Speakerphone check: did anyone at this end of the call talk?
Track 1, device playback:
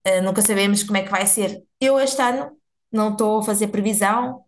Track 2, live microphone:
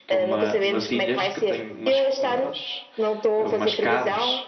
Yes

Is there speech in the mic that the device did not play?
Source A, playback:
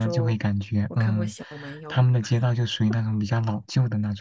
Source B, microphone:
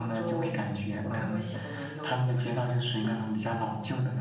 No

